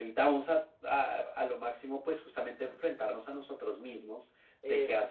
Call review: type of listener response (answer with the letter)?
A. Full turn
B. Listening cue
B